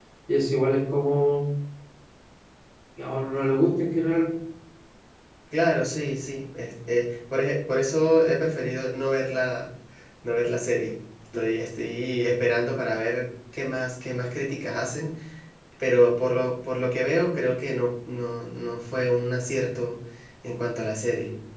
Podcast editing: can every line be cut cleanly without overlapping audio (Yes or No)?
Yes